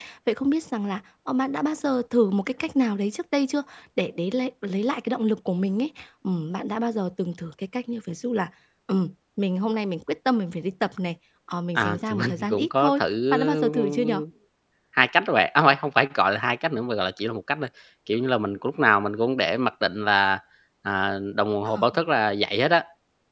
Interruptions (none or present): present